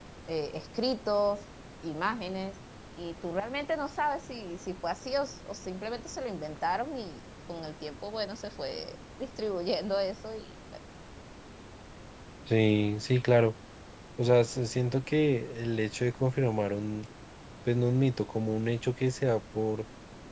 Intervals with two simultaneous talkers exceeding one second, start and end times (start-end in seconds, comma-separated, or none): none